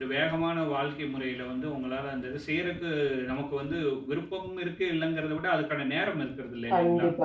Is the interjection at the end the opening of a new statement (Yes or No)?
Yes